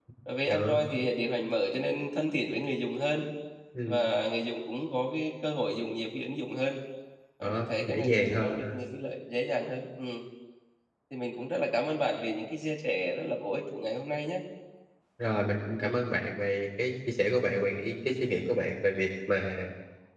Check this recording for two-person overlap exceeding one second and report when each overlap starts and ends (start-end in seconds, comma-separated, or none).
7.4-8.8